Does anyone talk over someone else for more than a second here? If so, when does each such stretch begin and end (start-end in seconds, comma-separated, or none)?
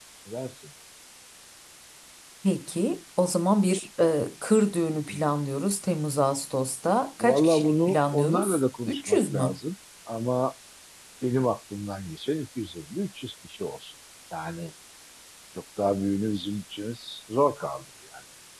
7.2-9.6